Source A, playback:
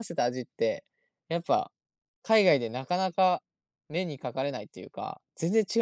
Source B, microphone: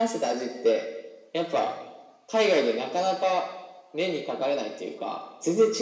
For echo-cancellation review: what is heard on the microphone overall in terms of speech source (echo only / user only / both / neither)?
echo only